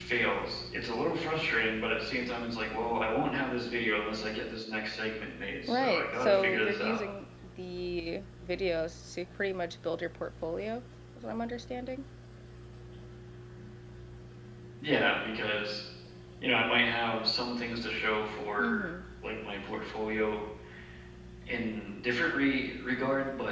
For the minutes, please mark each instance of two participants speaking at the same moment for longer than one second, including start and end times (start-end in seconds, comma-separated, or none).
5.7-7.0